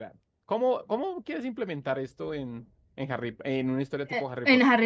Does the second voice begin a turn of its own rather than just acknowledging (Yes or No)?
Yes